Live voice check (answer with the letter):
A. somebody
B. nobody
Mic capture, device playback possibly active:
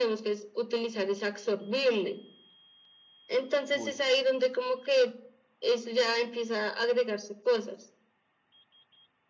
A